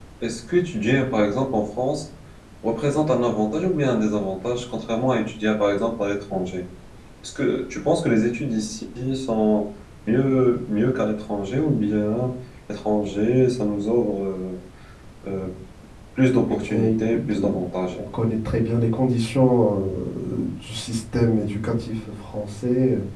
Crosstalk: present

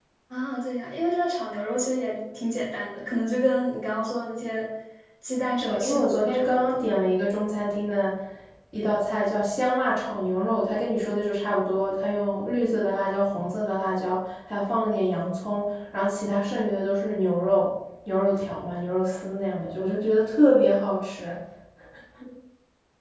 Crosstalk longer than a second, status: present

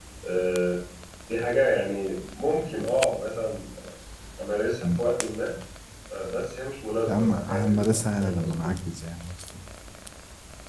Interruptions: present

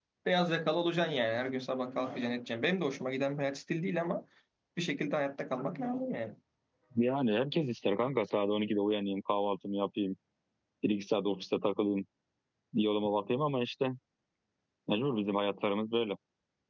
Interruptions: none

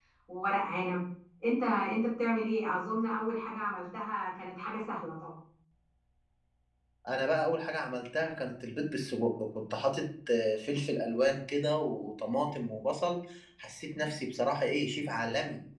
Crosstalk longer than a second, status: none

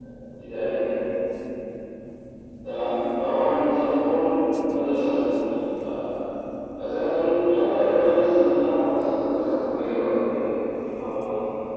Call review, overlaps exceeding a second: none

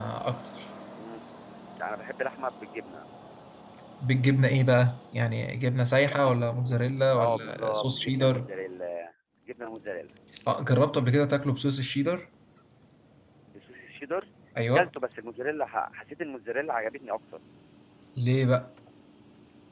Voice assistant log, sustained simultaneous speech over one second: present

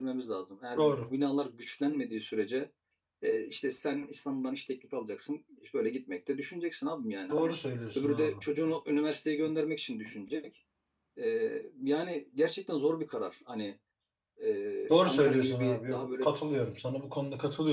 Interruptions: present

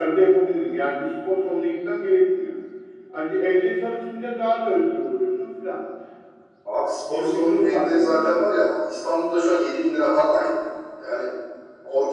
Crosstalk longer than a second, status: present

